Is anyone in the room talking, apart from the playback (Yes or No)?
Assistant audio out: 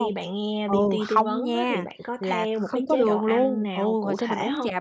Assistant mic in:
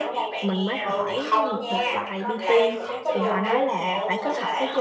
Yes